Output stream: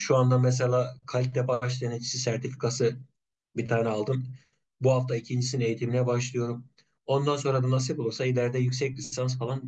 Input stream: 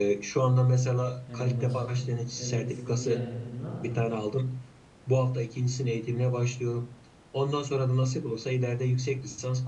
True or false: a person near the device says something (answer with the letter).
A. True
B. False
A